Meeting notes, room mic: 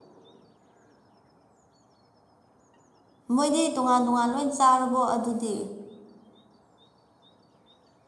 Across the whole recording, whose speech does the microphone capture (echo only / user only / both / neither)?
user only